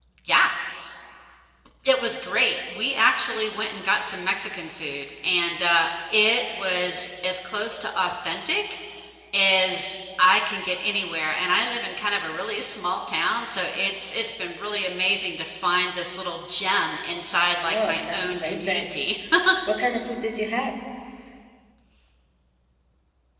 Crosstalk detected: Yes, from 17.6 s

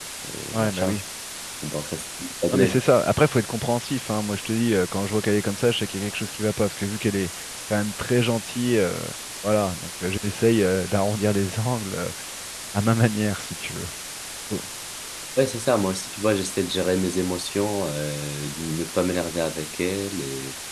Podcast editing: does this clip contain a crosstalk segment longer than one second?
No

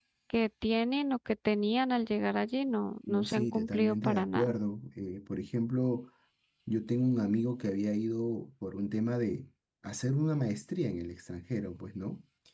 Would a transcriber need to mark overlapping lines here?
Yes, from 3.1 s

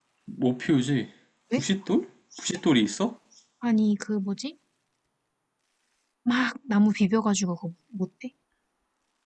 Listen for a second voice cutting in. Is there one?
No

